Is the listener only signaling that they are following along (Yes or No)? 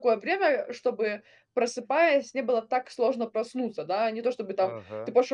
Yes